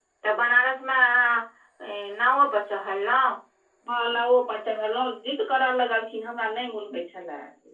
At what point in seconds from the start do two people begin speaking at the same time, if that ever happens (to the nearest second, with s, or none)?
none